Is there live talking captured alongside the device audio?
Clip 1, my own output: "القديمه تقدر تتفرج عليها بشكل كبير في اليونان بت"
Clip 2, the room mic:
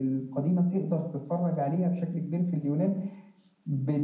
No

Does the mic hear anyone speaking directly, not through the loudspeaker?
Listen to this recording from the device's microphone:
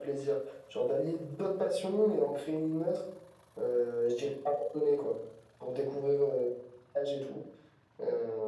No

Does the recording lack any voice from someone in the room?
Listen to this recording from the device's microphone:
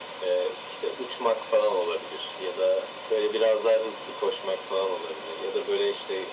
Yes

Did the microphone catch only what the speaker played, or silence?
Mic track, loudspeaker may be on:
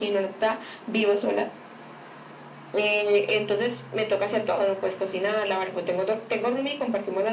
Yes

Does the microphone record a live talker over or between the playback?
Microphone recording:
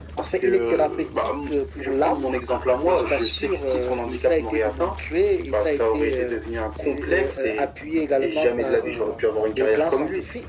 No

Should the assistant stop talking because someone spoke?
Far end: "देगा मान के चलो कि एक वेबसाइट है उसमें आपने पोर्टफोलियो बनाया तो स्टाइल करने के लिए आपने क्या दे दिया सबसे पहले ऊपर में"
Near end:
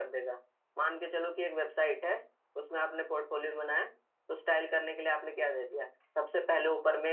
No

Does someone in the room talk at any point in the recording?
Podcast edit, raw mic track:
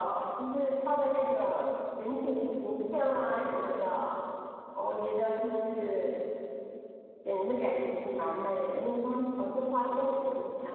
No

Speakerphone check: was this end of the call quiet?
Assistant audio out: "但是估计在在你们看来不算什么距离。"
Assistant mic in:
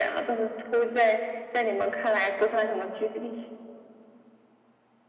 Yes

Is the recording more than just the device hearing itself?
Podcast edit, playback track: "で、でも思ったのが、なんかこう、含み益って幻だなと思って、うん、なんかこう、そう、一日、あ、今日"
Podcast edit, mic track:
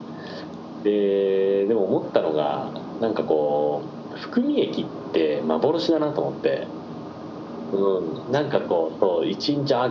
No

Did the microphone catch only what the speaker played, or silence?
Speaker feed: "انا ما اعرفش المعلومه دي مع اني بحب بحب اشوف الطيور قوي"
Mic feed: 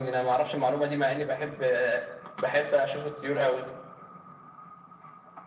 Yes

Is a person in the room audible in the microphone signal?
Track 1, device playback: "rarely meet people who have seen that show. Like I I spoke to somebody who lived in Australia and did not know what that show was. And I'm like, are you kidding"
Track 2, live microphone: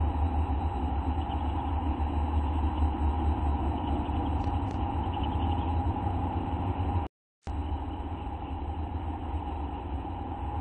No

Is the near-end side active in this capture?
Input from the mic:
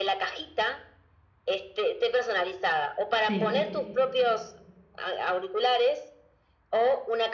Yes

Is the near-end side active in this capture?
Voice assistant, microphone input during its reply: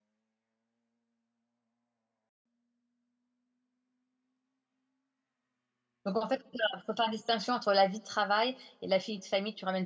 Yes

